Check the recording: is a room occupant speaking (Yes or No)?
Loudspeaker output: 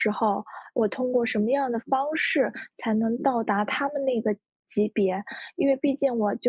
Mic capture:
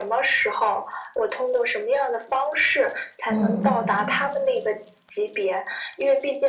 Yes